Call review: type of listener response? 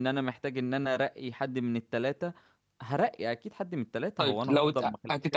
taking over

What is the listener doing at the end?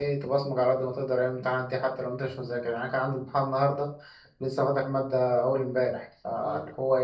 listening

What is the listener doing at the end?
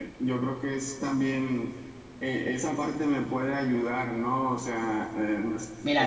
taking over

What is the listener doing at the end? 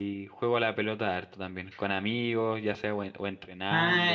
taking over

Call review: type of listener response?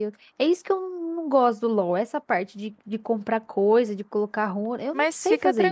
taking over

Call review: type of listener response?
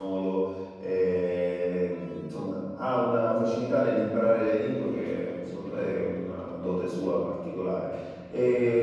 listening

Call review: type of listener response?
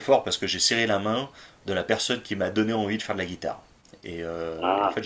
listening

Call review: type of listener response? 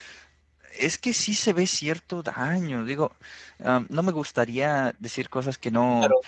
taking over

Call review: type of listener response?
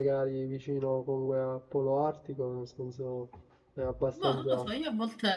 taking over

